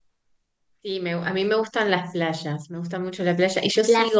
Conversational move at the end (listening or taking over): listening